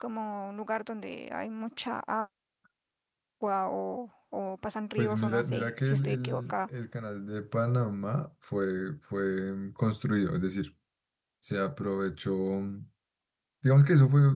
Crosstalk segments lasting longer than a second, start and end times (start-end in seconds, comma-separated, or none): 5.0-6.5